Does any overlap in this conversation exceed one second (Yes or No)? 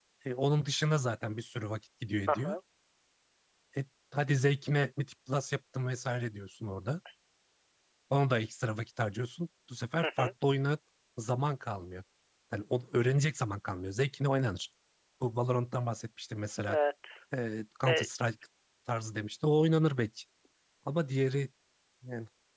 No